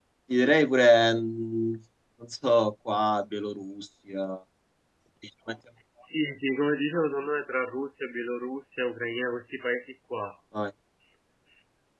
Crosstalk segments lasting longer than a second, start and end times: none

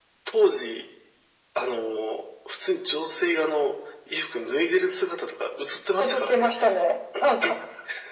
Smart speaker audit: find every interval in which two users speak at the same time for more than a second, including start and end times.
none

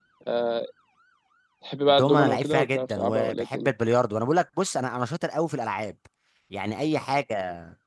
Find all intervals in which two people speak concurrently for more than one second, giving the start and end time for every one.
1.9-3.7

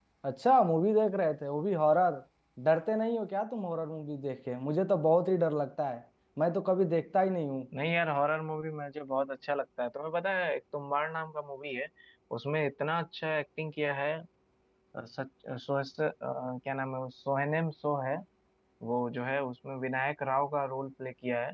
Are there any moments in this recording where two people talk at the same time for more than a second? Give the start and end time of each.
none

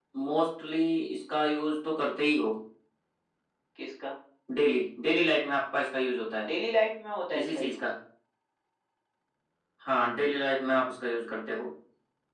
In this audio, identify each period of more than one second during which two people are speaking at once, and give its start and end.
none

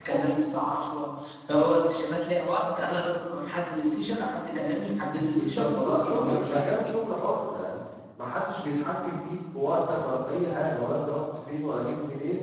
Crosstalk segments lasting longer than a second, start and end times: 5.3-6.6

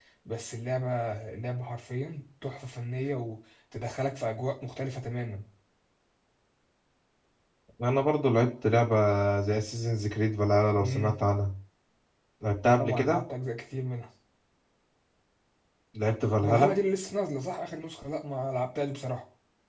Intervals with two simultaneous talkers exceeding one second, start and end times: none

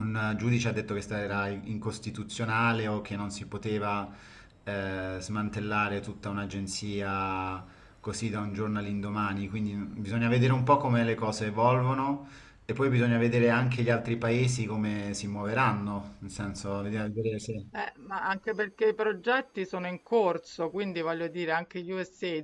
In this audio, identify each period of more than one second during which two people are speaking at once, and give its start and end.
none

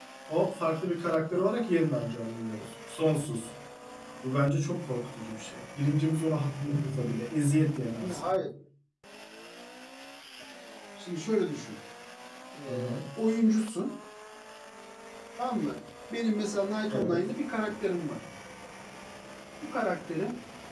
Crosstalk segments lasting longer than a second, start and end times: none

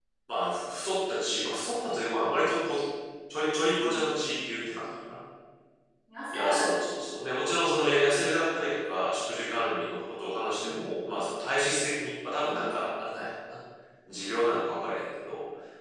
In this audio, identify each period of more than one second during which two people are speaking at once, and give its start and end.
none

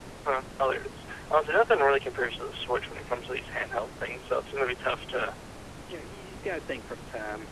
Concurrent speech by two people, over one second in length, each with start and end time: none

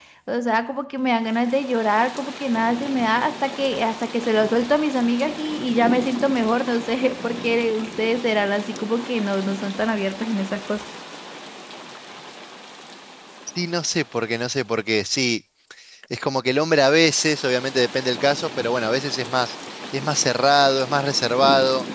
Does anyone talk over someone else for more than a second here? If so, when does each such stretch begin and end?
none

